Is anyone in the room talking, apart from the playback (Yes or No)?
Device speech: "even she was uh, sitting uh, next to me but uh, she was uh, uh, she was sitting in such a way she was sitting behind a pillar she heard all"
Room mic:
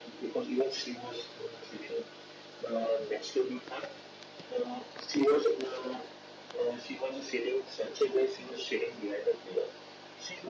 No